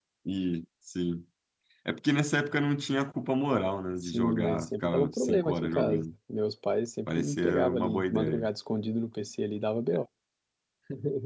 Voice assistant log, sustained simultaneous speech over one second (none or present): present